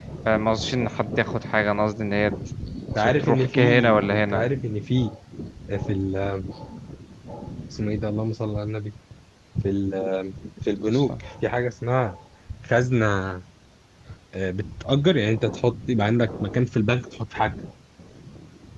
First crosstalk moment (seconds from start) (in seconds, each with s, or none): 3.0 s